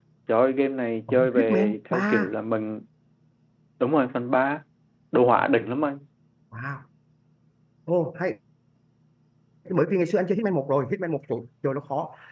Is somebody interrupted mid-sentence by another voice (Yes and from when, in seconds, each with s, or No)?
Yes, from 1.1 s